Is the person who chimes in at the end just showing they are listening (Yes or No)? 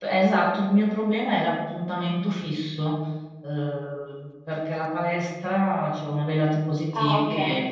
Yes